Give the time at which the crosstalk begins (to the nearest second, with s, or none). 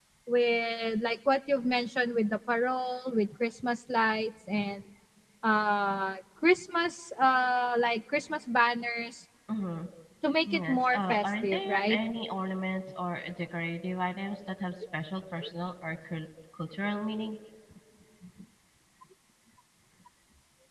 11 s